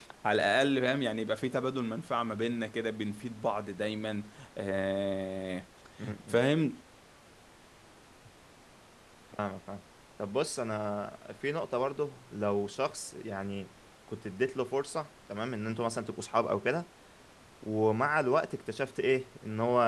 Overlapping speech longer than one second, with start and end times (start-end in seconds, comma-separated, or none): none